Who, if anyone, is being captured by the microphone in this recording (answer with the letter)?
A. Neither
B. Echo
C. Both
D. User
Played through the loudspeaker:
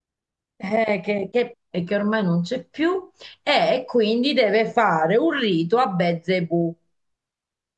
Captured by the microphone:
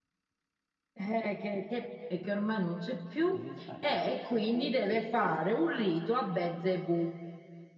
C